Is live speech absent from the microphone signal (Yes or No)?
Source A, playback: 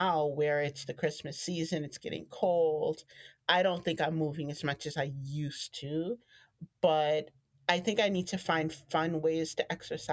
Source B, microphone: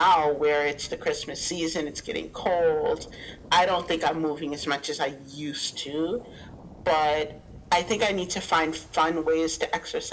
Yes